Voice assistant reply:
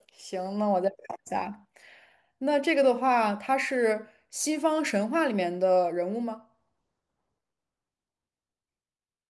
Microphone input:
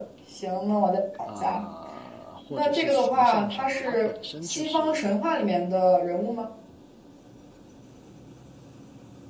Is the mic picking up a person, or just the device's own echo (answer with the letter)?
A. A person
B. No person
A